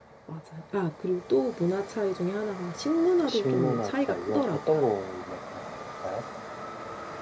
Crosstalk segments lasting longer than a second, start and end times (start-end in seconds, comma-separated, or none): 3.3-4.8